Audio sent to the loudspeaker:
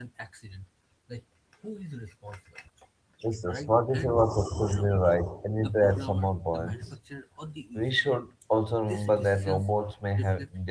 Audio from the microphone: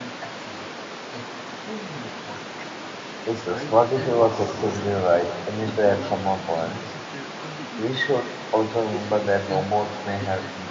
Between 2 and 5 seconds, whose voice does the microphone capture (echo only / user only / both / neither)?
echo only